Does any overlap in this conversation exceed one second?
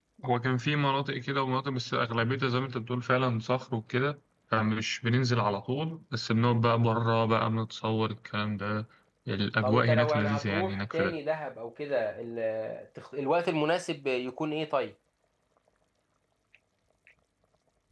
Yes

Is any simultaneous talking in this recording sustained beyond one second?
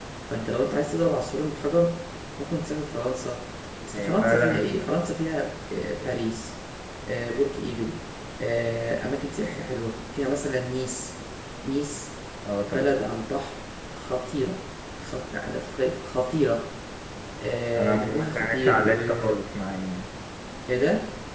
Yes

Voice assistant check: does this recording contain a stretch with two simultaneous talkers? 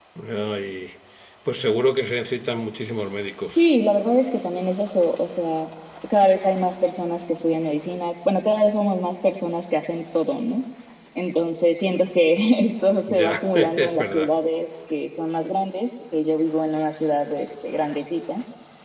Yes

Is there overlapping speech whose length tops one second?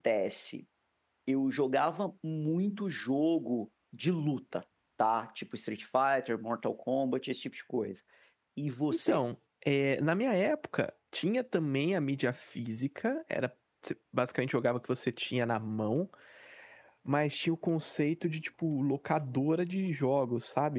No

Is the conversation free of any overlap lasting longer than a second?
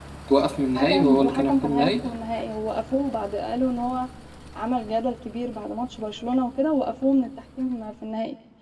No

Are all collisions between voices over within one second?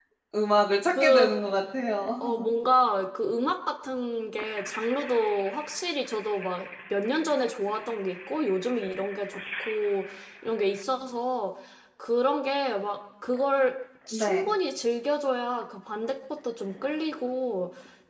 Yes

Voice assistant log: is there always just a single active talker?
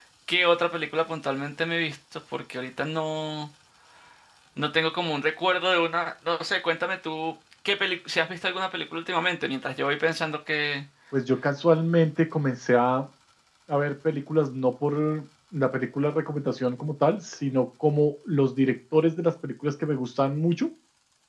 Yes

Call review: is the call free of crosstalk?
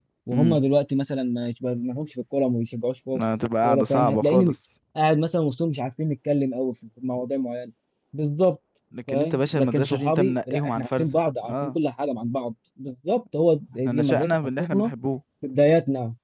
No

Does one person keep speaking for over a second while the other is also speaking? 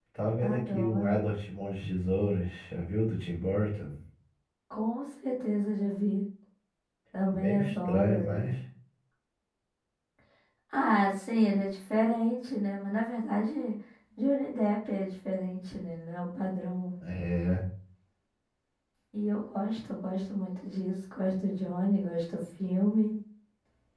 Yes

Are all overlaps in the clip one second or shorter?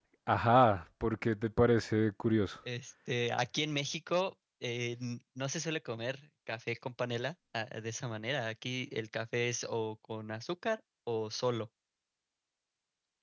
Yes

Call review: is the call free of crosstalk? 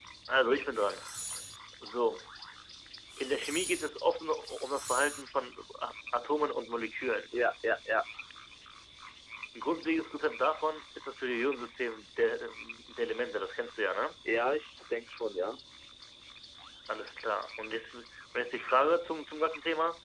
Yes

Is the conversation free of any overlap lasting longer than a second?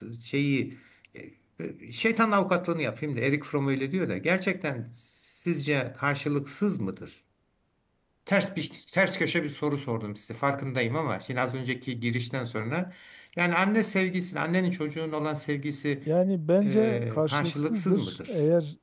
No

